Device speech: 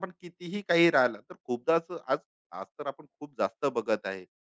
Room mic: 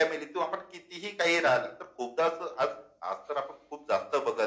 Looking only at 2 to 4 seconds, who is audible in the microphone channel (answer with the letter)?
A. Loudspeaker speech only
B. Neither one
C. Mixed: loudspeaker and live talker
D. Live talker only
A